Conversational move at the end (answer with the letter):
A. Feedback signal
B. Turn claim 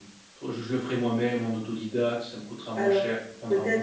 B